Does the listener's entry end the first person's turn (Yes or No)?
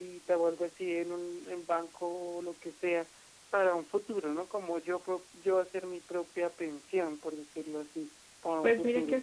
Yes